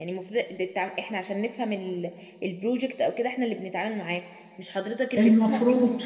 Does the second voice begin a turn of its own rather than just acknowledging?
No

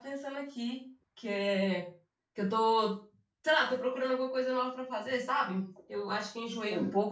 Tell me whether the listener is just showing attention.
Yes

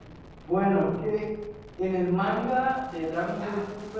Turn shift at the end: No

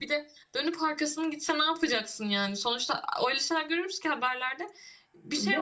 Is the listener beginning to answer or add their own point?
Yes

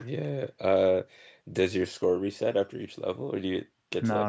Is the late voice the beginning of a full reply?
Yes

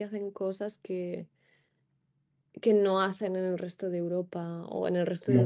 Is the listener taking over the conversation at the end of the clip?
No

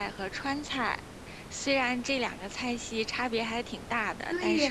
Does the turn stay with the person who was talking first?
No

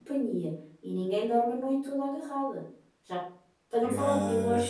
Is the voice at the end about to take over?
No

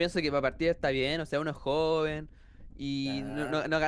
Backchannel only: Yes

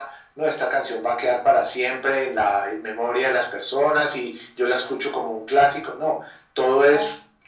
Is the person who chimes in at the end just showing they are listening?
Yes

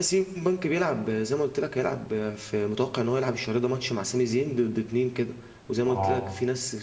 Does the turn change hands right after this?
No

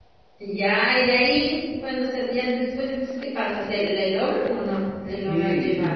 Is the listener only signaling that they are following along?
No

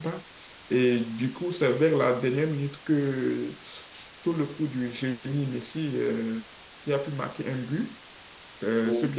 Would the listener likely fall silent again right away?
Yes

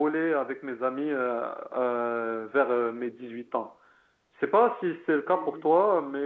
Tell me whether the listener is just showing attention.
Yes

